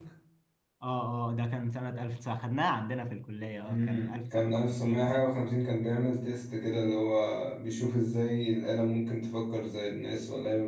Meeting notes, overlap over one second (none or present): present